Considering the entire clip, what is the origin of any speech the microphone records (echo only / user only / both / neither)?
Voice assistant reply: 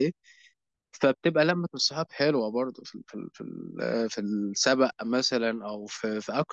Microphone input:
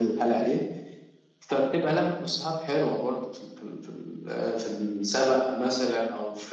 echo only